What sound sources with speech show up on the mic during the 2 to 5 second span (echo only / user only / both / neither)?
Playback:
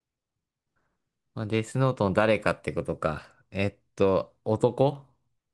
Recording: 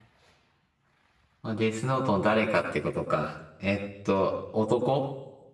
echo only